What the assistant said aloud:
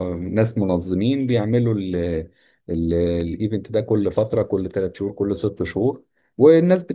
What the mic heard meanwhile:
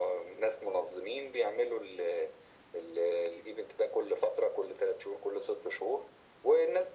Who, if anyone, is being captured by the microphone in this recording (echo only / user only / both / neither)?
echo only